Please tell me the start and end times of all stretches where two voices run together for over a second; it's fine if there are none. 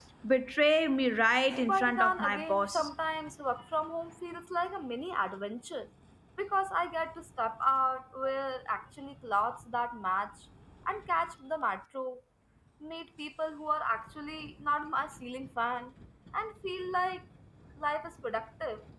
1.7-2.9

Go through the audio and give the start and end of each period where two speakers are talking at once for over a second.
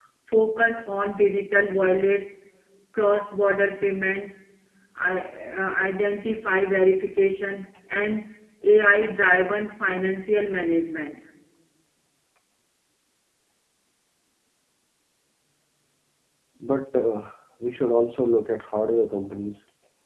none

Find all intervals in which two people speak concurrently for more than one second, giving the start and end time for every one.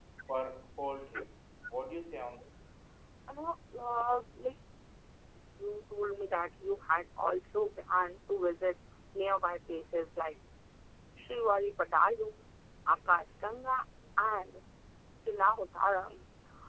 none

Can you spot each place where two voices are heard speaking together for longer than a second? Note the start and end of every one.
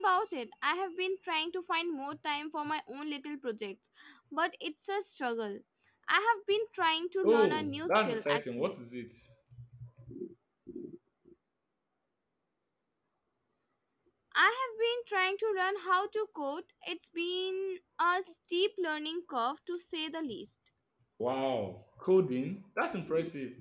7.2-8.7

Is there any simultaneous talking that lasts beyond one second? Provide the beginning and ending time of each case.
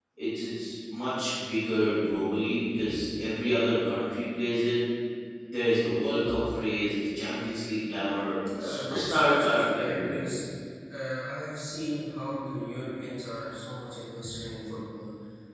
8.6-10.3

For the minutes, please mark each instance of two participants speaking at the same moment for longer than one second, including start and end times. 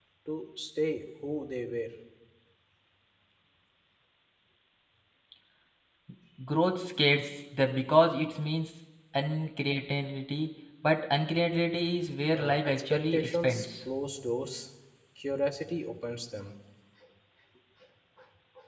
12.3-13.7

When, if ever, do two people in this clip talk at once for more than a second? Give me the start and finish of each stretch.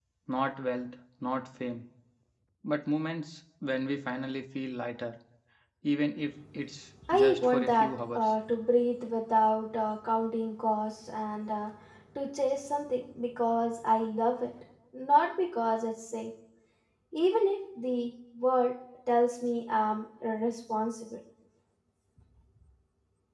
7.1-8.3

